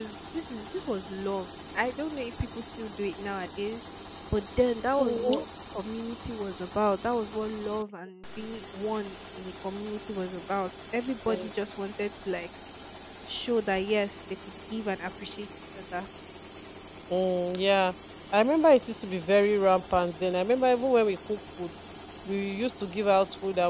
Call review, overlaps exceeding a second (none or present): none